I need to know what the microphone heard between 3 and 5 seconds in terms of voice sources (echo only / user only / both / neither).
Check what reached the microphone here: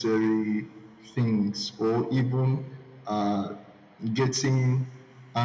echo only